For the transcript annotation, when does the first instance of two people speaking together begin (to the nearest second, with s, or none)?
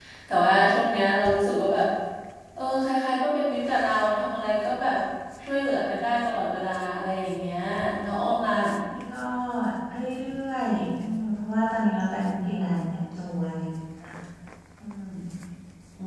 none